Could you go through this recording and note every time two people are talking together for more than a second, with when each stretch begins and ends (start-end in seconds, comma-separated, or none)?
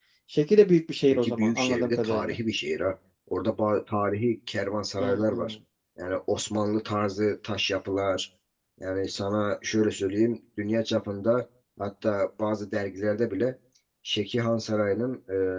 1.0-2.4